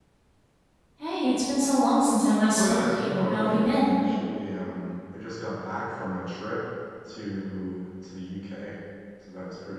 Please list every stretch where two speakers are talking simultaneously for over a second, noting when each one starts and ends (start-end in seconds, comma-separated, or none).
2.5-3.9